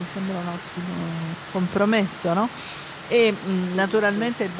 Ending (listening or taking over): listening